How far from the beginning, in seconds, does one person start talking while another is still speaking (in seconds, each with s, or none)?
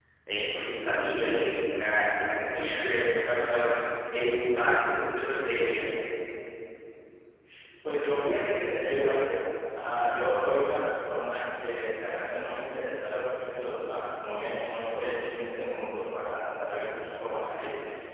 none